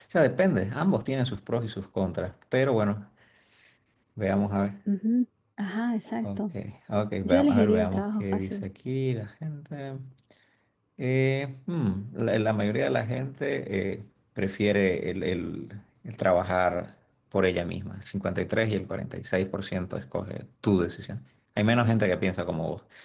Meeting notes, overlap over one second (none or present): present